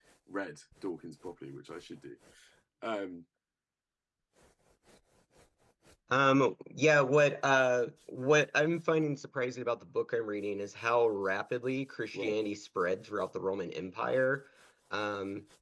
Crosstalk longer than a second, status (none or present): none